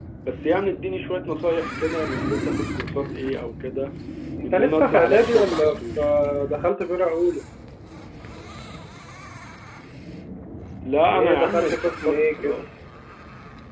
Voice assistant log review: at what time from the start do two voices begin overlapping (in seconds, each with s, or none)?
4.5 s